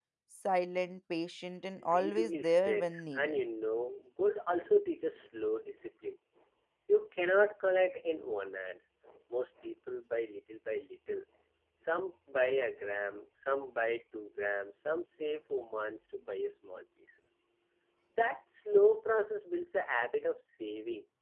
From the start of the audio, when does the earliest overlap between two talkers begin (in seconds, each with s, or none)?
1.8 s